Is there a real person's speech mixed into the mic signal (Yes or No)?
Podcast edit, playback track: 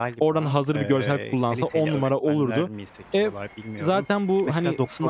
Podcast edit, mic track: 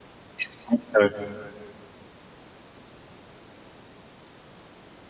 Yes